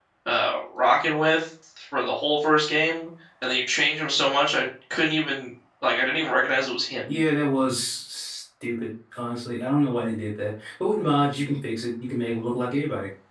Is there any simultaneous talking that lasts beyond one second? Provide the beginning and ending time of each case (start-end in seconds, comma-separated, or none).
none